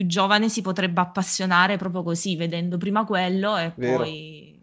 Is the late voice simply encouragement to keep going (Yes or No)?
No